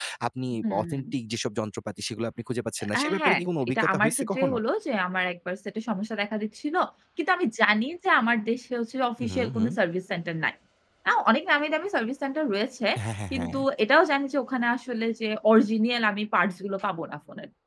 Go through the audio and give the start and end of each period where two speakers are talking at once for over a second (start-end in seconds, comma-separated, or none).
2.9-4.6